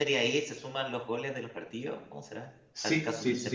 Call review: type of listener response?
taking over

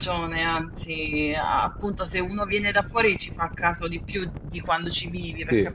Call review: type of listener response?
listening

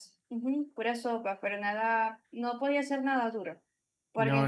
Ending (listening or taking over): listening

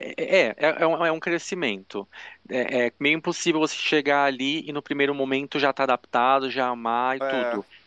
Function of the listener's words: listening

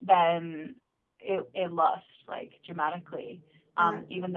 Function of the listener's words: listening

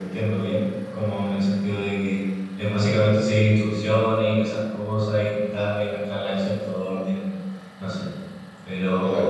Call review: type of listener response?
listening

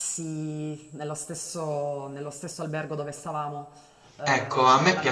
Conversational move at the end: taking over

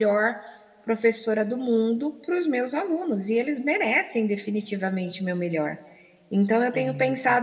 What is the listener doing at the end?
listening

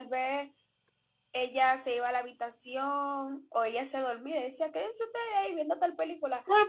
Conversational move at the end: taking over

